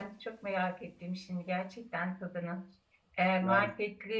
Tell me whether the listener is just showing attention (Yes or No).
Yes